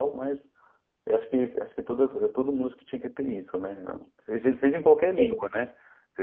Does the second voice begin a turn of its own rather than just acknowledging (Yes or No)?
No